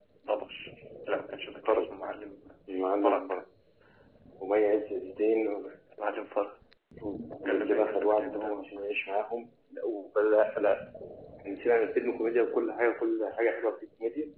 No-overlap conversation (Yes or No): No